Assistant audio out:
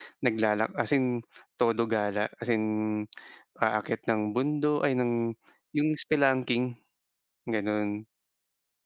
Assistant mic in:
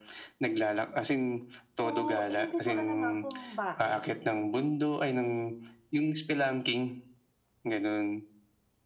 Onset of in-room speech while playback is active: 1.8 s

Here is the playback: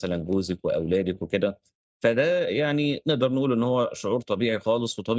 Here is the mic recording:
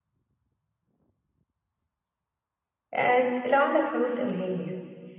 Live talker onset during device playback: 2.9 s

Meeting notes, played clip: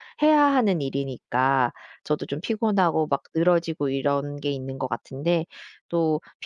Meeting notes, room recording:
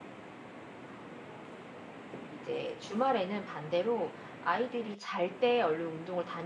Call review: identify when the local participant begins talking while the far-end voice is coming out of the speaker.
2.3 s

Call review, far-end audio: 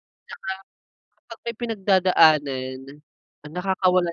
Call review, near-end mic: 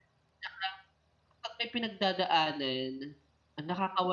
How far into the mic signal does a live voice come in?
none

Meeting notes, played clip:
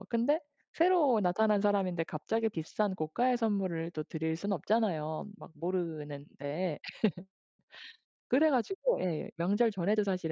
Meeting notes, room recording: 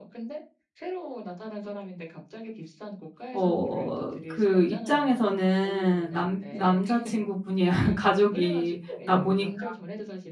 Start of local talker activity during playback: 3.3 s

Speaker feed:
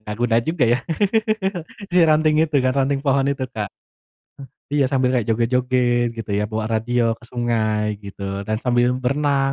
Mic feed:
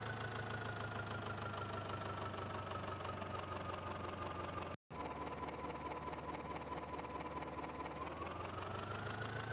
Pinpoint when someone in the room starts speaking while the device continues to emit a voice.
none

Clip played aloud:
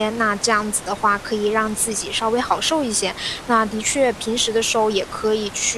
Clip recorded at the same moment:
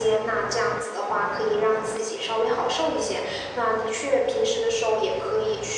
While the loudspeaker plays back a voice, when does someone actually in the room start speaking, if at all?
none

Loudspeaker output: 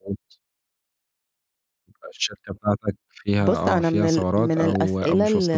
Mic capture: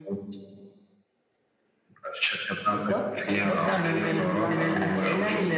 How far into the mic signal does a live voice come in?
2.6 s

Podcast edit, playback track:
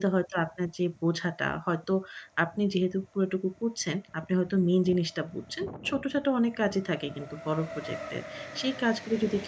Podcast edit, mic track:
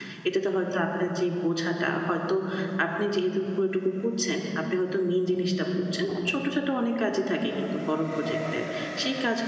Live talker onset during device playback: none

